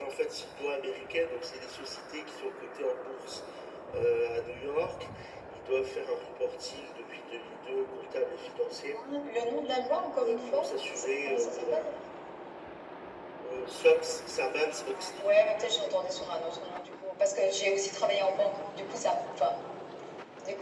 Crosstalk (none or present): present